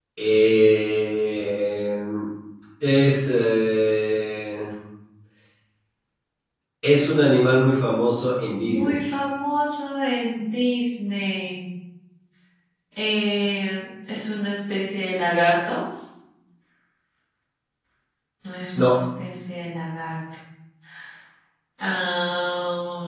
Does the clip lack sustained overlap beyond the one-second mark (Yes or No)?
Yes